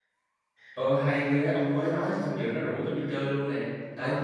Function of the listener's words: listening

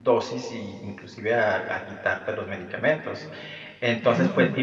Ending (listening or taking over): listening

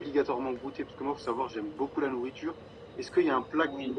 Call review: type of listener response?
listening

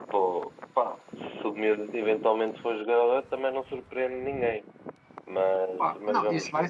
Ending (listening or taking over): taking over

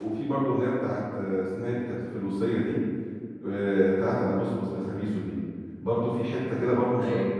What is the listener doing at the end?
listening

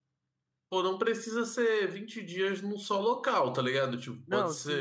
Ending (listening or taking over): taking over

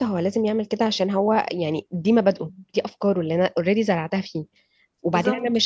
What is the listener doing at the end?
listening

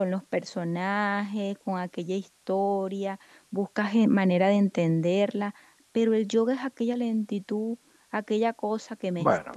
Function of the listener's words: taking over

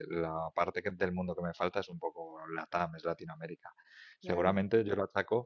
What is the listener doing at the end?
listening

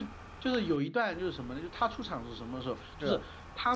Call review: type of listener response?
listening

